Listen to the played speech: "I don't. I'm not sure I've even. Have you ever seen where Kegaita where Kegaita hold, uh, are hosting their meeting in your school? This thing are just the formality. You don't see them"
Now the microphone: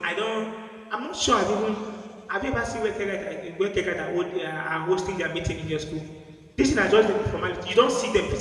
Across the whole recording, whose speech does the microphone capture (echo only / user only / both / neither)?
echo only